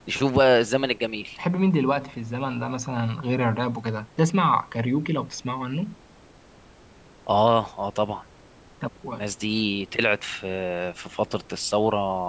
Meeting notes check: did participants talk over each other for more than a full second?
No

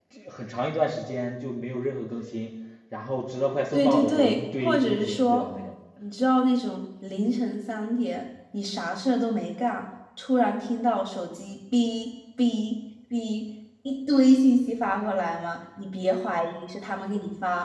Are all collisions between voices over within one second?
No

